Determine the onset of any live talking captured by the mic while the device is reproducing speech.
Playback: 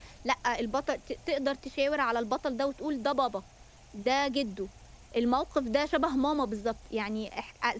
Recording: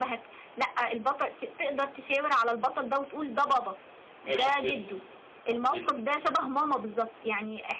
4.2 s

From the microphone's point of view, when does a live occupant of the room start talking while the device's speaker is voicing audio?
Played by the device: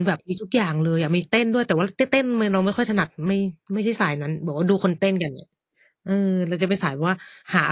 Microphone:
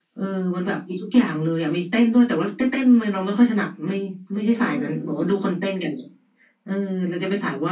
4.4 s

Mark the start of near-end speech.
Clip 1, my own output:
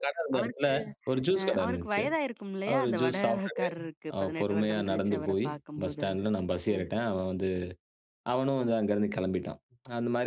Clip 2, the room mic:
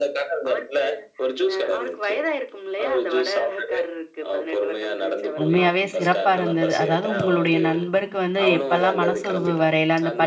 5.4 s

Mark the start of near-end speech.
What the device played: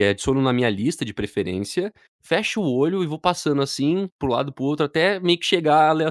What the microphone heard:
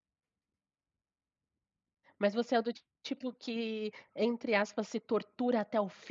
2.2 s

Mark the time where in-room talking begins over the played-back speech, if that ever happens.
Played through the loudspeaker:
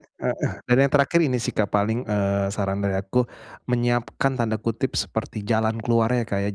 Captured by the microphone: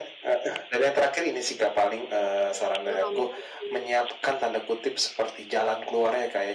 2.8 s

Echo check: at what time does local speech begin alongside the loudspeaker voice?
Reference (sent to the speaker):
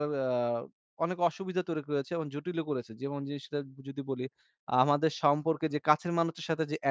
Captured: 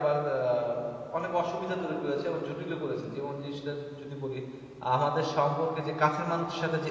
none

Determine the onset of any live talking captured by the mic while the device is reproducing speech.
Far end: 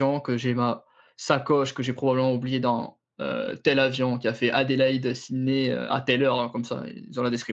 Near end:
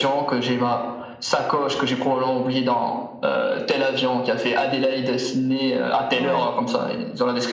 6.1 s

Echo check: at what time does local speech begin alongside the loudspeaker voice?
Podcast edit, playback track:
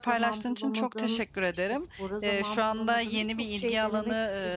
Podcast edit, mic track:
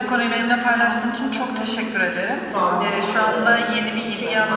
2.4 s

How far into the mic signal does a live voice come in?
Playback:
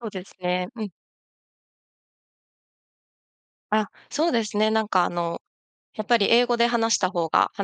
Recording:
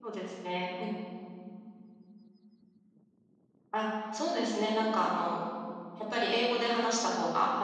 none

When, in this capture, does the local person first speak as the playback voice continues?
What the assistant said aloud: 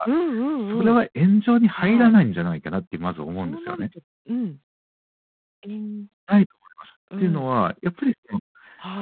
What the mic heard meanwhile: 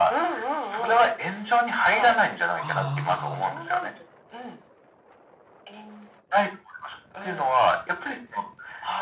2.5 s

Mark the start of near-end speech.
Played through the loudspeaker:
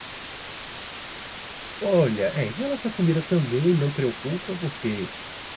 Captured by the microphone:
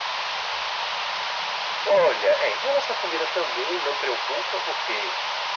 none

